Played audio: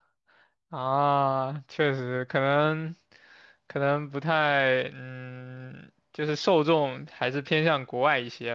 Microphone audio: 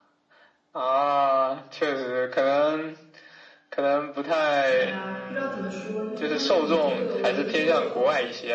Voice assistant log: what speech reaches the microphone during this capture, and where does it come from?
both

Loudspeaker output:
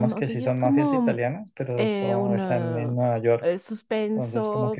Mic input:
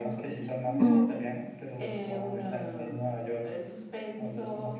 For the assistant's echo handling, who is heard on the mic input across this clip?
both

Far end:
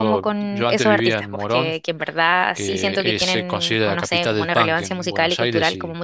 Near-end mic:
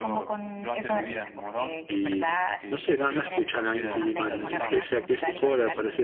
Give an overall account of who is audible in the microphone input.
both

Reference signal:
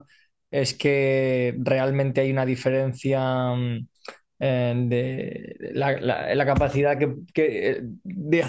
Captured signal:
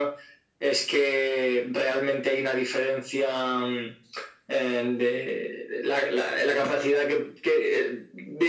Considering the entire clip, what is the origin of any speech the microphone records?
echo only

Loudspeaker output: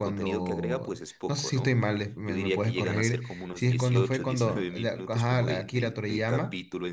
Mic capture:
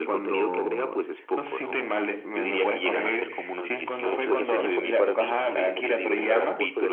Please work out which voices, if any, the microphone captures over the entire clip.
both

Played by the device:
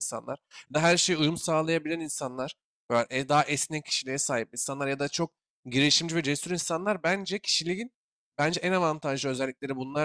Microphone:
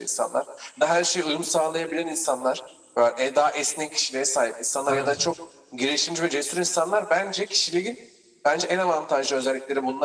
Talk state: both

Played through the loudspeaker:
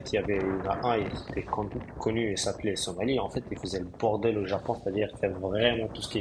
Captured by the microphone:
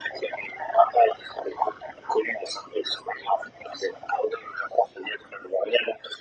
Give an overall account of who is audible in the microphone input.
echo only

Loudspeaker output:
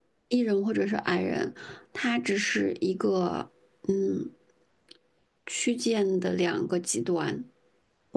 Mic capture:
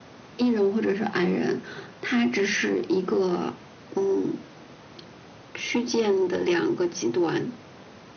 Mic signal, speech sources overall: echo only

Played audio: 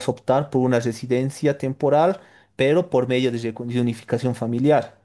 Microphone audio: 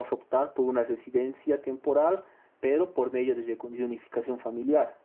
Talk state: echo only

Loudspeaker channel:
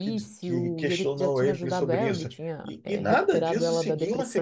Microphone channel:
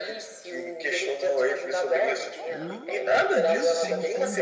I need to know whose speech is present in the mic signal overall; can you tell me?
both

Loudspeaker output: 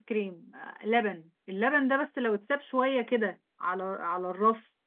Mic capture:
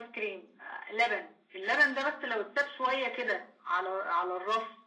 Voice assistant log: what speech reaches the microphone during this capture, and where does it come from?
echo only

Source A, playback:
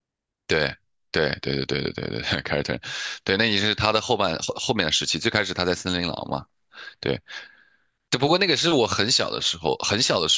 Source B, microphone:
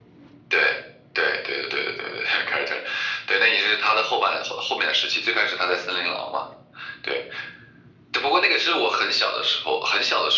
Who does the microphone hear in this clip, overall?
echo only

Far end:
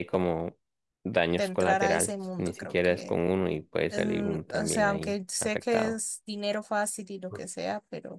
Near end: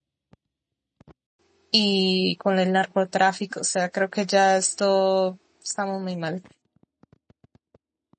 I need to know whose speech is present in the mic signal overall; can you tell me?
user only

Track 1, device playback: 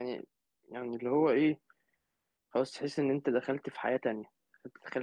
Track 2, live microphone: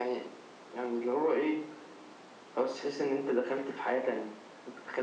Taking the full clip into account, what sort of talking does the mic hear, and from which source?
echo only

